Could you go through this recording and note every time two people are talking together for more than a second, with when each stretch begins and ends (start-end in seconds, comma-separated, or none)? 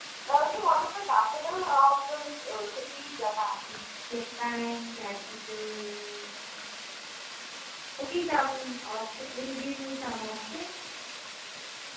none